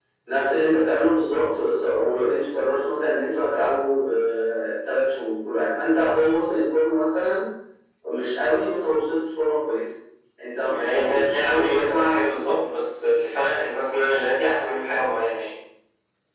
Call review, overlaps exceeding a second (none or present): present